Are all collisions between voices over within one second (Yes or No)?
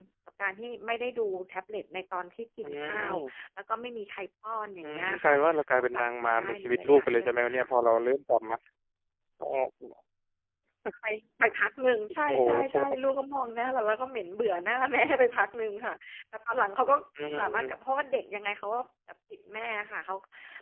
No